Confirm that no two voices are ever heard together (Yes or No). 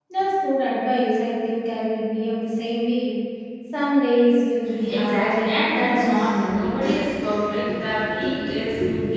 No